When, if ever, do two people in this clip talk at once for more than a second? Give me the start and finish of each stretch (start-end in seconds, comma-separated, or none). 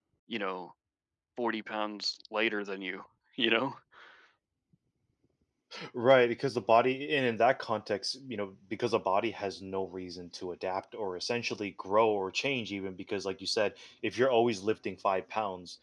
none